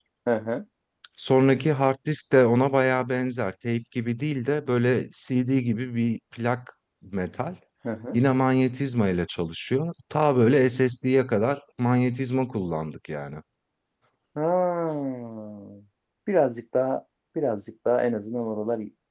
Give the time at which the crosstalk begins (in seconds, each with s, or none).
none